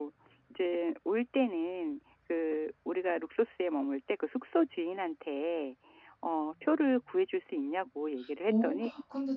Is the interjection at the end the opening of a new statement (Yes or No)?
Yes